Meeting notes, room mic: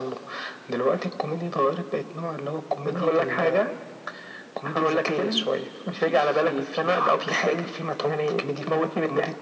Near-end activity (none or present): none